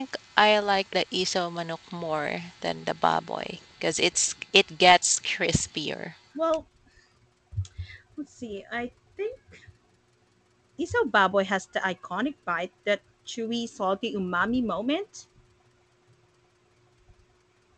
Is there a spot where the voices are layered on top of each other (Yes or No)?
No